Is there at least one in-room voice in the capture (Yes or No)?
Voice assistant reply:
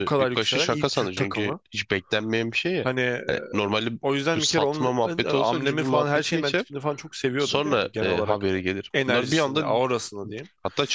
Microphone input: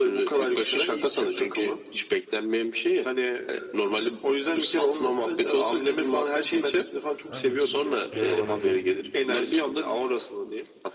Yes